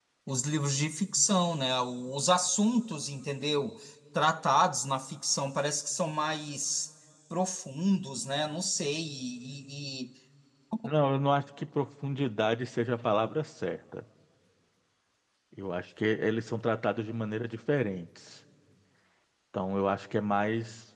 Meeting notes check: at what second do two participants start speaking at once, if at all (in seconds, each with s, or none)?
none